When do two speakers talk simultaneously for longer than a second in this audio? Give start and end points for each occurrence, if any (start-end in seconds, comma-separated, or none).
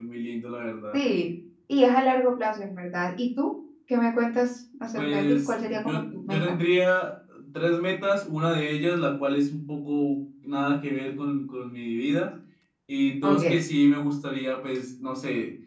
5.0-6.6